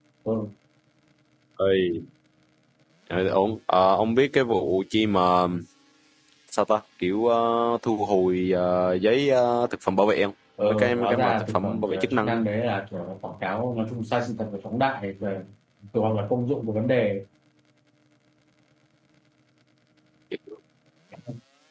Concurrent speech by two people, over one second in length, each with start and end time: 10.7-12.4

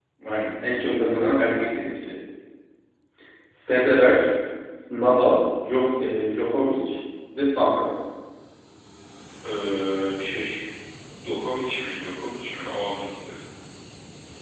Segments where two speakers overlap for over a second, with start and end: none

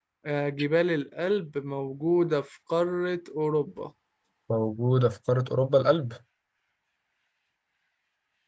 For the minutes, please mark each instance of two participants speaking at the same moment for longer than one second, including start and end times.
none

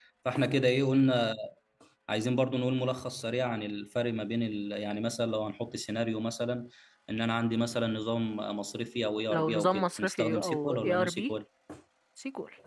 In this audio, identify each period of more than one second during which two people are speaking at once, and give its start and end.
9.3-11.3

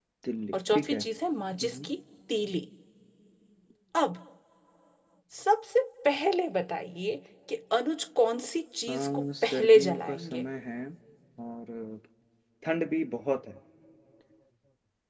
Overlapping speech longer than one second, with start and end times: 8.9-10.4

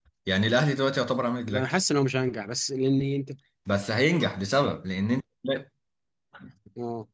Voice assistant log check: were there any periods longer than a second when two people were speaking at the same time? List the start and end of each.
none

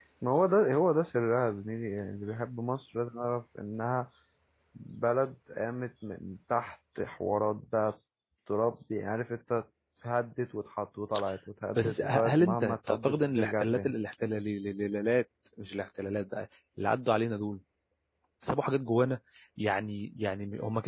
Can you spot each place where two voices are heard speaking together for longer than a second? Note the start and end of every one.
11.8-13.9

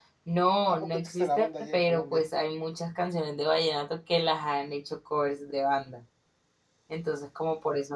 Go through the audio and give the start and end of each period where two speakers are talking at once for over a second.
0.6-2.2

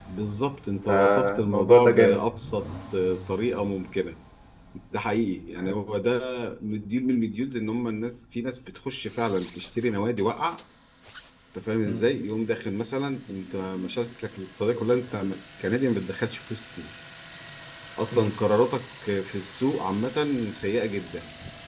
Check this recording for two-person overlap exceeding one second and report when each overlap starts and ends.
0.9-2.2

